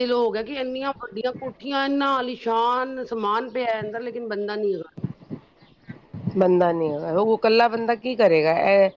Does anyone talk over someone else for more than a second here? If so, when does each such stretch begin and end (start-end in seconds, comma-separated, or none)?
none